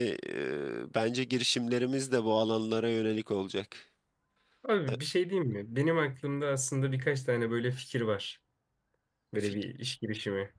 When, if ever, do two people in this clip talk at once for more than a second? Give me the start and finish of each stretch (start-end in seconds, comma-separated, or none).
none